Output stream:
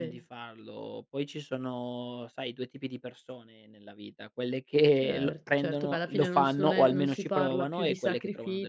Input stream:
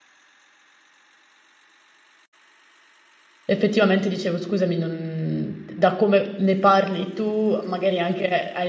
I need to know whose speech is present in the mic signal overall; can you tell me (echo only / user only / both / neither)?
user only